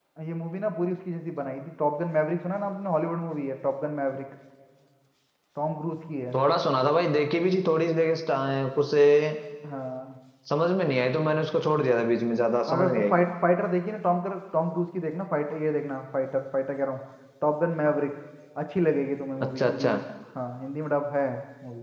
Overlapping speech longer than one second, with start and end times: none

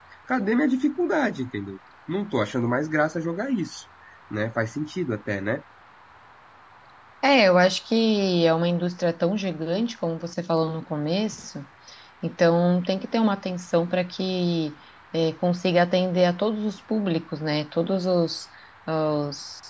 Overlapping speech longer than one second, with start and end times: none

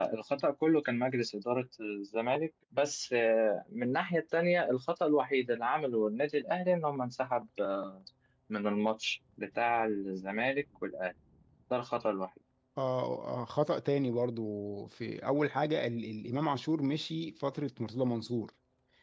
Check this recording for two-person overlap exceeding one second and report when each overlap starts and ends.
none

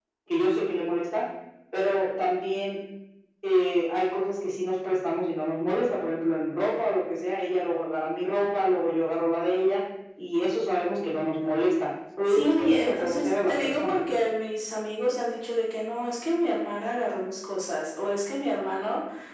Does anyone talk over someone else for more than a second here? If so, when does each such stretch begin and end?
12.3-14.0

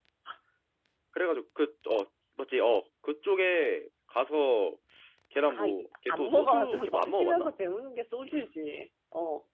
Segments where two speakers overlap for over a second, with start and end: 5.5-7.5

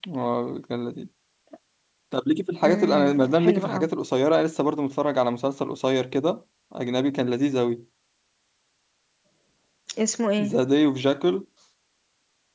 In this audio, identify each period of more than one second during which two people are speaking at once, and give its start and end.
2.6-3.9

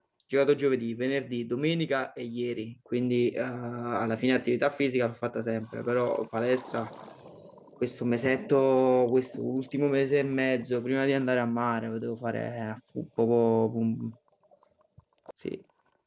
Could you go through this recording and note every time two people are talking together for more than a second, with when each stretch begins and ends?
none

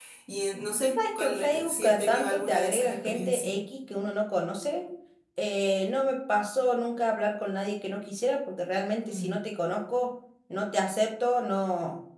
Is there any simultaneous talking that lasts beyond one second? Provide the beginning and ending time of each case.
1.2-3.5

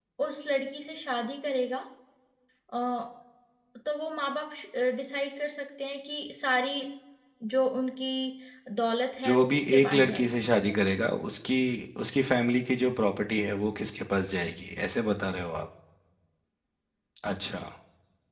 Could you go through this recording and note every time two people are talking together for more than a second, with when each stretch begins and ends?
9.2-10.5

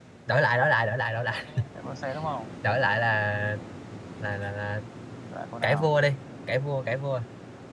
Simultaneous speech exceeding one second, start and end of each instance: none

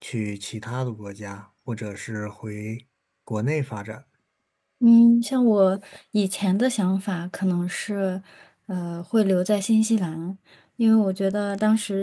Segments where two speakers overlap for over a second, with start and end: none

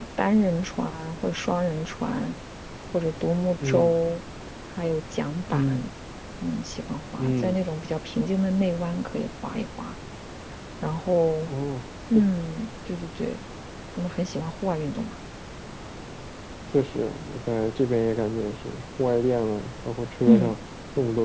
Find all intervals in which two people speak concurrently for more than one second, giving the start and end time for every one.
none

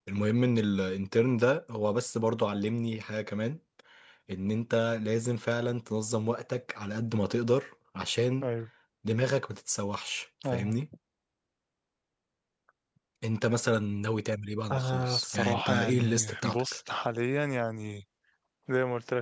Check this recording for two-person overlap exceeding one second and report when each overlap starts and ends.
14.7-16.6

